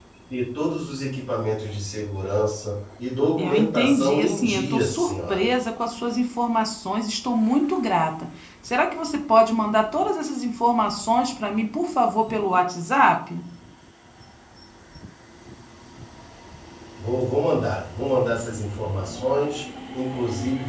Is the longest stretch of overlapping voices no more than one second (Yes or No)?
No